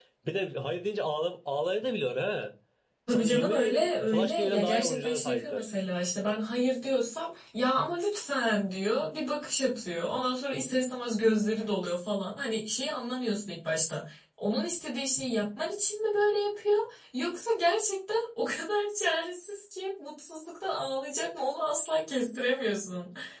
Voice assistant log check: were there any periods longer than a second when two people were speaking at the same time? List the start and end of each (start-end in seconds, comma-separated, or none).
3.1-5.7